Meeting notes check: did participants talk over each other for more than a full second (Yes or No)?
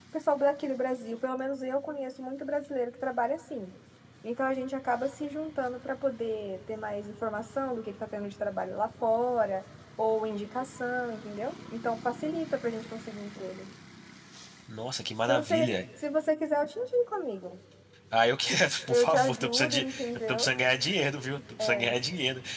Yes